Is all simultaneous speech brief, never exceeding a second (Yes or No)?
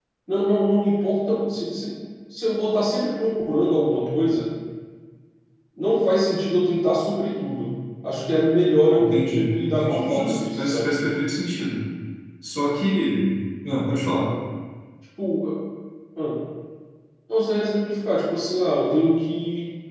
No